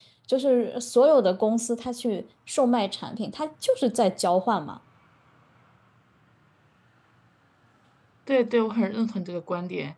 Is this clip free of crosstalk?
Yes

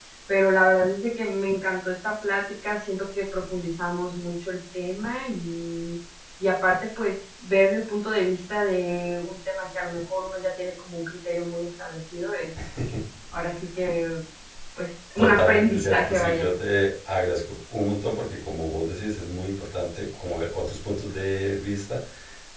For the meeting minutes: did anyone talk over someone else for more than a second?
Yes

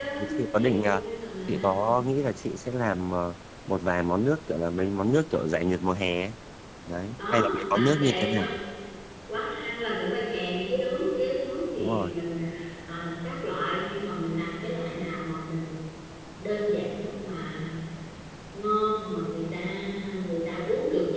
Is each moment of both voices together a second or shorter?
No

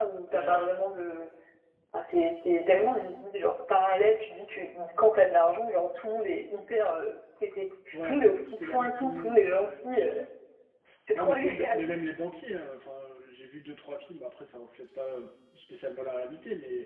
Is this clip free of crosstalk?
No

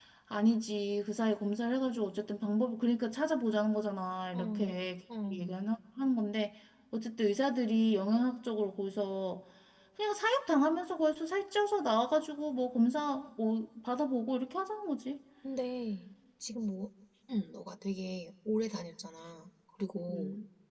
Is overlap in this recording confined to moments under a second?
Yes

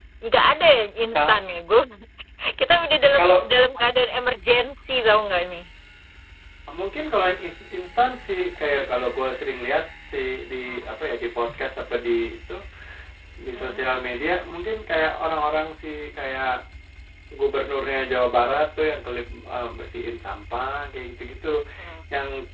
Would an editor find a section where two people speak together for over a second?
No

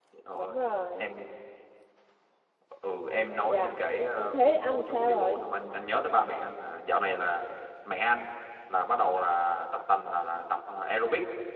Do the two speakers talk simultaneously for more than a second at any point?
Yes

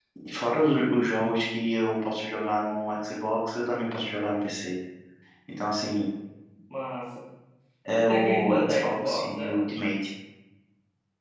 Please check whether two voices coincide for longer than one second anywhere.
Yes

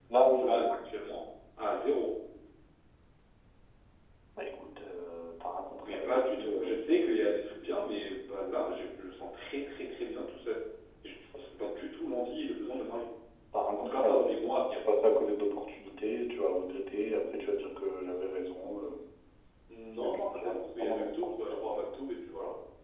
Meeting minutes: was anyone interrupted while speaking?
Yes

